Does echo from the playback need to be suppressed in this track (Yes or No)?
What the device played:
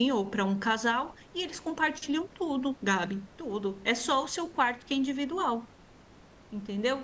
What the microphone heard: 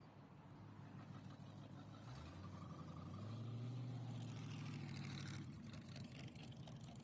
No